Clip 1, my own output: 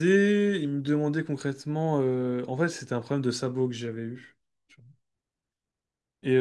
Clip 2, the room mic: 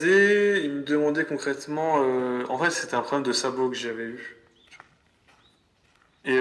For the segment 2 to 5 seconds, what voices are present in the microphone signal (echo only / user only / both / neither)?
echo only